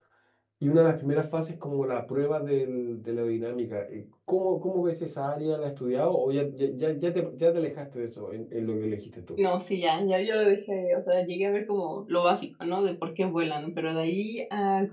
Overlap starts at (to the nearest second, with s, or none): none